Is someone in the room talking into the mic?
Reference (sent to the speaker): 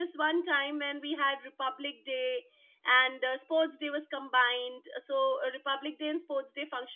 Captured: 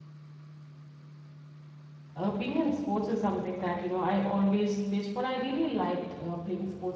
Yes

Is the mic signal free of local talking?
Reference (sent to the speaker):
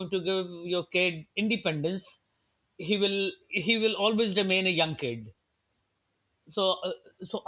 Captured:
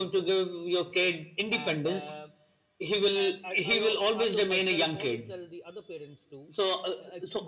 No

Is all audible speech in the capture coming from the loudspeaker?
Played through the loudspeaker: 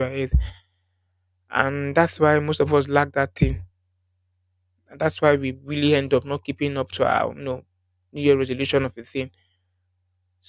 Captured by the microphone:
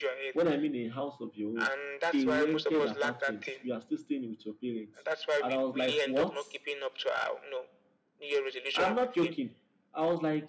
No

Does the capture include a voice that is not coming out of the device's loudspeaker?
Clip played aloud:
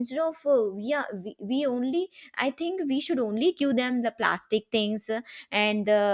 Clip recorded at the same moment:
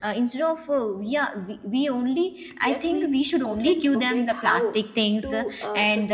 Yes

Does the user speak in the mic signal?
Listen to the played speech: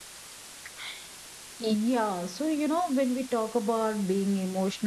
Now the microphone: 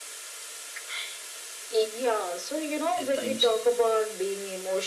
Yes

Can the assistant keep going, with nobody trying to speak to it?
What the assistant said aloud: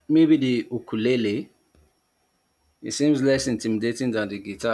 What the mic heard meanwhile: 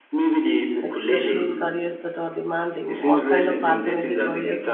No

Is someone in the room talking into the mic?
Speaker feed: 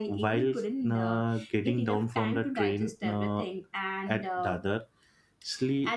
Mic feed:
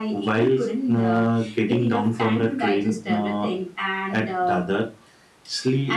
No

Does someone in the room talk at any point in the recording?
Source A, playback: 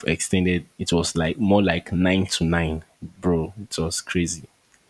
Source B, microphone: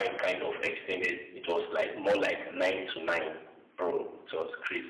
No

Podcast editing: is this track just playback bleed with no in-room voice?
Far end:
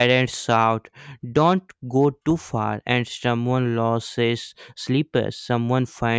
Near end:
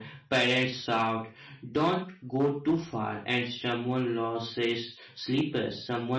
Yes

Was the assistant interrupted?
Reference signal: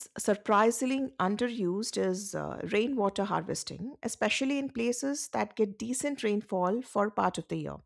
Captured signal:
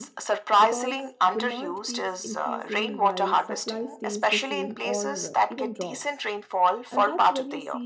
Yes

